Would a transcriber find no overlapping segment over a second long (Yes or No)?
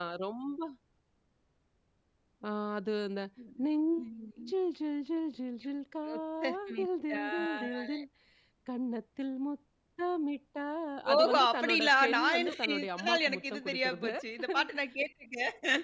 No